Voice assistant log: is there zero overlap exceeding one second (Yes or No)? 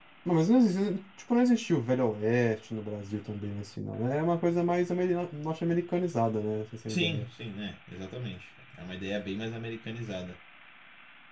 Yes